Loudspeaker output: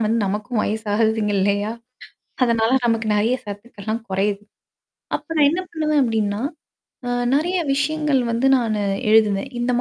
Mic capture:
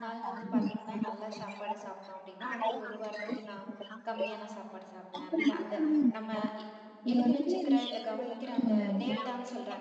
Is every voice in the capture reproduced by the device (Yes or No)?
No